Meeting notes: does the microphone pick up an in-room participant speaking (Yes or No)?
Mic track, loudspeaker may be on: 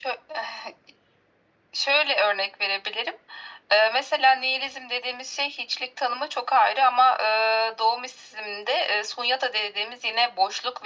No